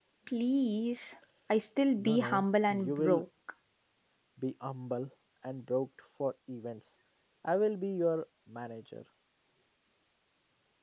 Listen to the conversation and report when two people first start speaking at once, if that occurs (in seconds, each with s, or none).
2.0 s